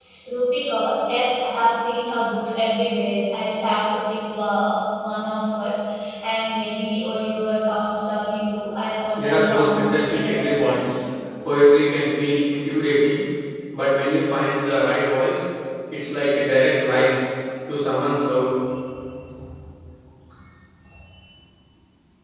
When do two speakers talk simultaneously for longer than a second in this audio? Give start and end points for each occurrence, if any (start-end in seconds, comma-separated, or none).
9.2-10.9